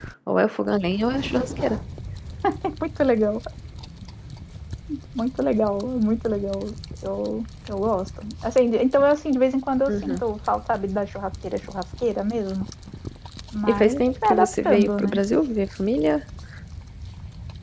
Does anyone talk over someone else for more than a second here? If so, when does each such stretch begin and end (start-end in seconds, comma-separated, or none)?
13.7-15.2